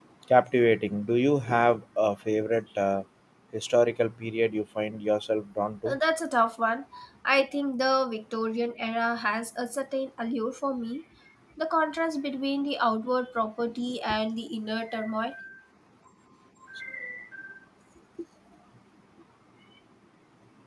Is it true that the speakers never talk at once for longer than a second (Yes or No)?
Yes